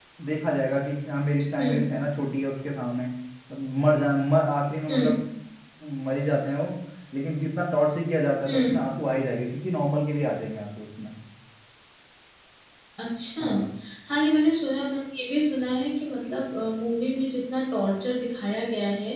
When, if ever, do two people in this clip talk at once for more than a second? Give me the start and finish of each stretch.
none

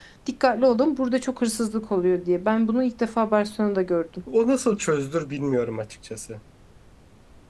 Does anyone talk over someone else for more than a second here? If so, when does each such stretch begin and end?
none

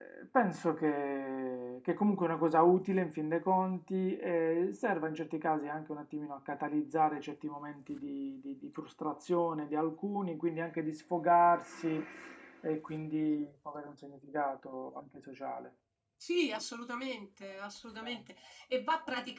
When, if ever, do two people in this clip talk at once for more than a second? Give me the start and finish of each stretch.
none

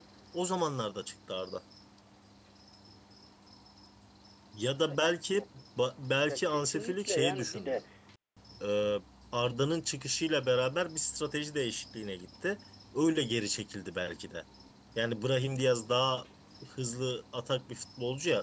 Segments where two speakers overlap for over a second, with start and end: 6.3-7.8

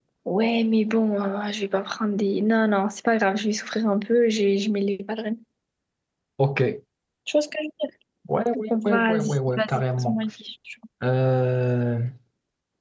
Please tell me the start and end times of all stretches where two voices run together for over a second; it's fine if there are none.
8.7-10.2

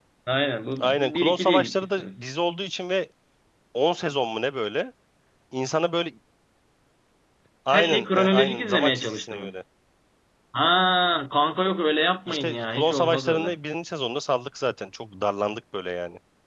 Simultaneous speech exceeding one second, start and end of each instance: 0.8-2.2, 7.7-9.6, 12.3-13.6

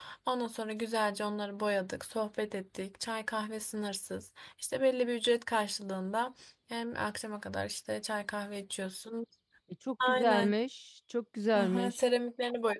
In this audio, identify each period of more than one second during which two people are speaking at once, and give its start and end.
none

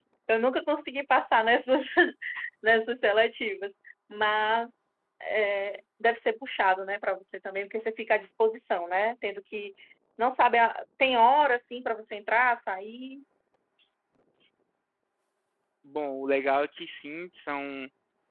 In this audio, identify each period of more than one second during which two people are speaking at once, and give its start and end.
none

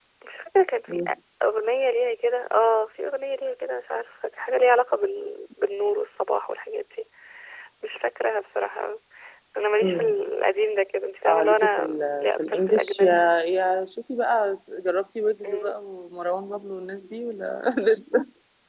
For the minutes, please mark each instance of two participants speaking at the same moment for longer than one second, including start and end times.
11.2-13.1

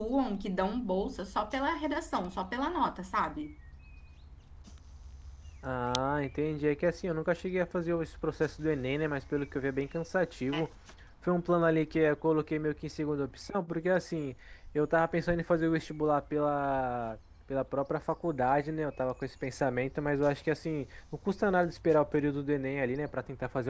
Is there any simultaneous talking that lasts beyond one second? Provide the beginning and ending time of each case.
none

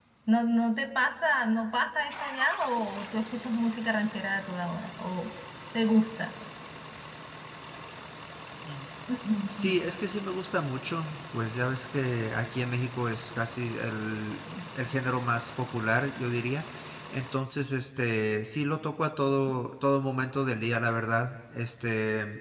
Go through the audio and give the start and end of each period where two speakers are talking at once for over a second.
none

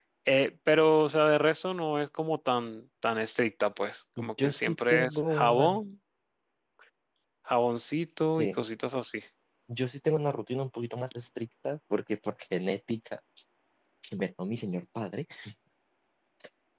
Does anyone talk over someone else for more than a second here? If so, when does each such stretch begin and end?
4.4-5.8

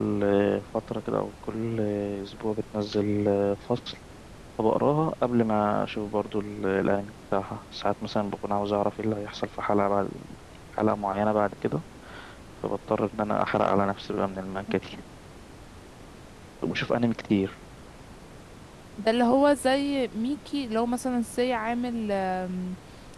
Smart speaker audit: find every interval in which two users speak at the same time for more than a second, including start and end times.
none

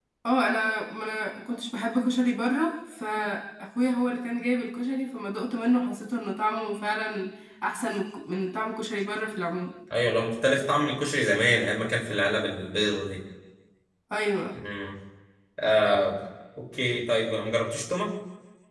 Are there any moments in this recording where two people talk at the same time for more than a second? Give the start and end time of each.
none

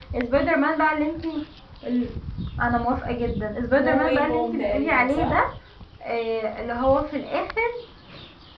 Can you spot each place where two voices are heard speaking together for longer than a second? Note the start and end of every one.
3.8-5.4

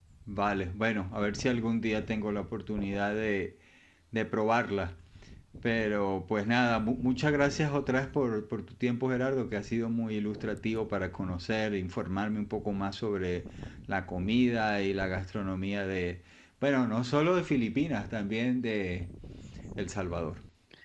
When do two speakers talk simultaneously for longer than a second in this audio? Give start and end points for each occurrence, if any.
none

